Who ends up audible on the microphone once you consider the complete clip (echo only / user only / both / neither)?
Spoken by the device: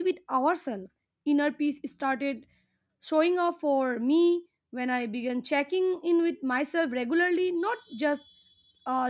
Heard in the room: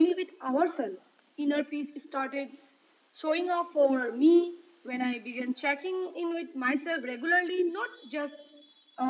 echo only